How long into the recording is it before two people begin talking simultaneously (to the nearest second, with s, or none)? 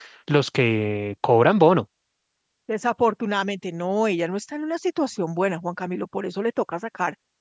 none